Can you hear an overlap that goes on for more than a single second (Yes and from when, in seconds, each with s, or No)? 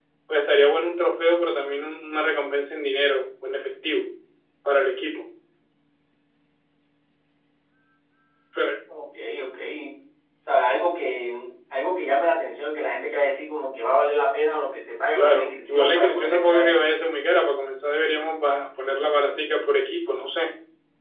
Yes, from 15.2 s